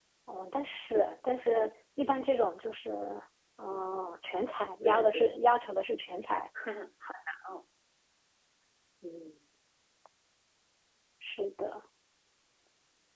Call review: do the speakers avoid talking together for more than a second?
Yes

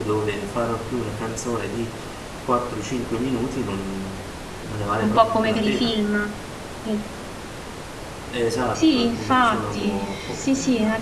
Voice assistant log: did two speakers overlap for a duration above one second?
Yes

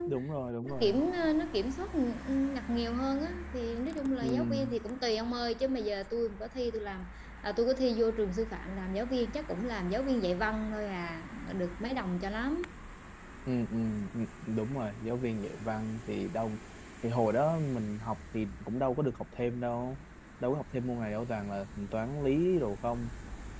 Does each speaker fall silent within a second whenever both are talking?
Yes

